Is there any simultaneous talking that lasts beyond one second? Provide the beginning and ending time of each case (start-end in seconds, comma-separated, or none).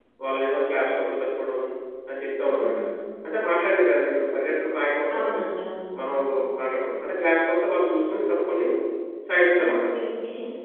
none